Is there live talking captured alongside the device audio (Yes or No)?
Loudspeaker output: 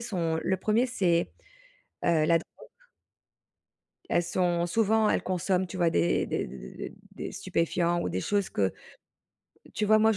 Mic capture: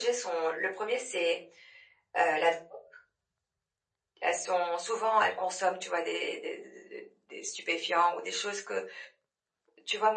No